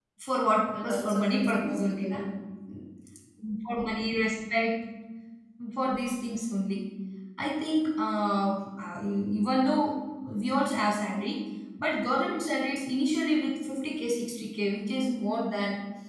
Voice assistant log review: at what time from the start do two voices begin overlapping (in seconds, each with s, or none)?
0.7 s